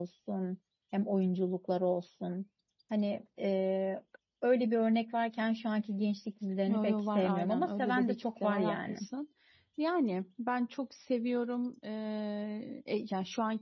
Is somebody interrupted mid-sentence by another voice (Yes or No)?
Yes